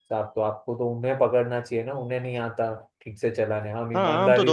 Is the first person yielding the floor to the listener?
Yes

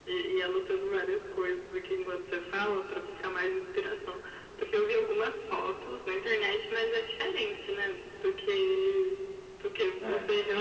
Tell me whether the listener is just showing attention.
Yes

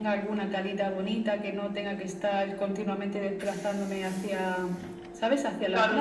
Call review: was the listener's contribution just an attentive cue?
No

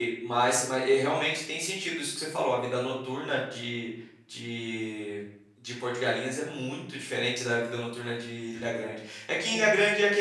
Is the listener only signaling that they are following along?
Yes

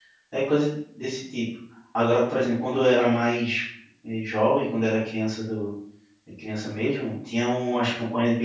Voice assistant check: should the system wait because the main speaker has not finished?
Yes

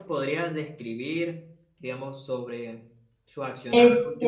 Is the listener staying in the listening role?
Yes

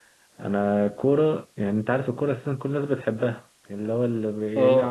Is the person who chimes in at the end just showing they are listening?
Yes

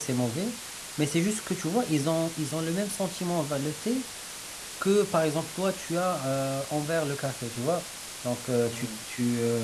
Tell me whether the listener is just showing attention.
Yes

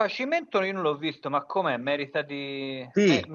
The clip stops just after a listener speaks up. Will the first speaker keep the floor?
No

